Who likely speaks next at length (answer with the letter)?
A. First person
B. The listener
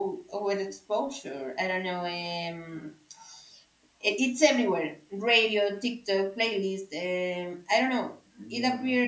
A